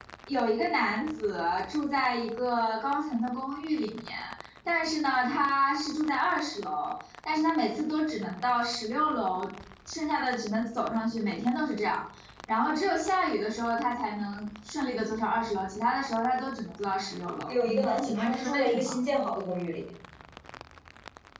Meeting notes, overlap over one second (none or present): present